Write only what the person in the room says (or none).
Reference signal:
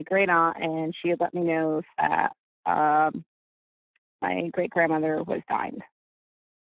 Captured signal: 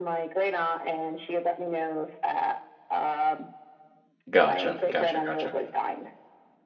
Gotcha, gotcha, gotcha.